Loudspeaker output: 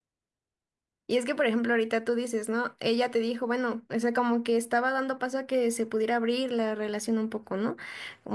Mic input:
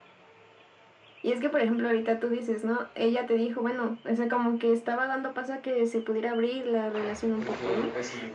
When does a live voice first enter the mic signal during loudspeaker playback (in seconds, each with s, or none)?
7.3 s